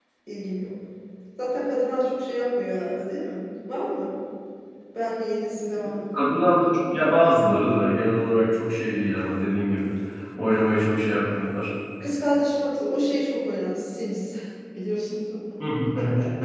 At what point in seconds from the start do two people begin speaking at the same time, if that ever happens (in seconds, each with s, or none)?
none